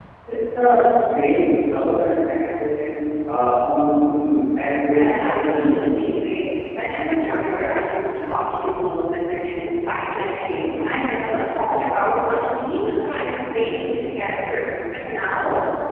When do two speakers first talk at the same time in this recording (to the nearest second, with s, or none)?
5 s